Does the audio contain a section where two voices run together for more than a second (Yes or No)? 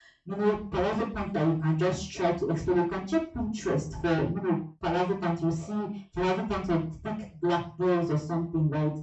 No